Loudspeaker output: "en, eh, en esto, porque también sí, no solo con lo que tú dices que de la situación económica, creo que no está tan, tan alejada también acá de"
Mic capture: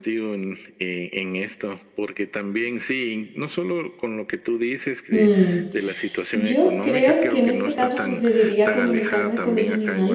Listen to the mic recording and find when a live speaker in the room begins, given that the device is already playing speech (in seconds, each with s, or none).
5.1 s